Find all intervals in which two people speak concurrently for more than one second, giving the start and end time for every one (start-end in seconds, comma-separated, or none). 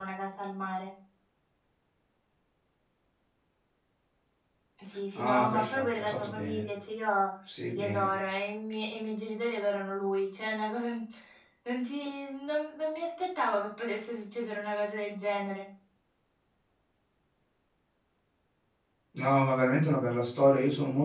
5.2-6.6